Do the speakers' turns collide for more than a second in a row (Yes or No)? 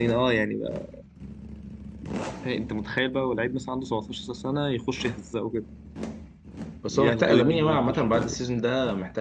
Yes